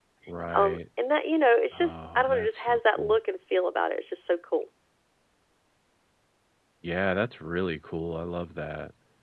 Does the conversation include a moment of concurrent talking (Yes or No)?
Yes